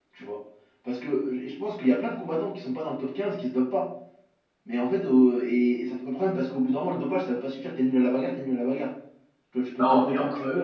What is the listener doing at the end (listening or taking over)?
taking over